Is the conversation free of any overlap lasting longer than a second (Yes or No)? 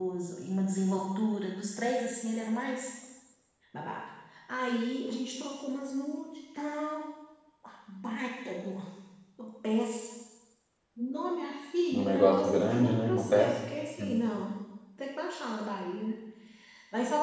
No